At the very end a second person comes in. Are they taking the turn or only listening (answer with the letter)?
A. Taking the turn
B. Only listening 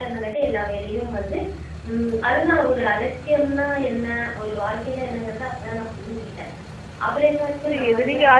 A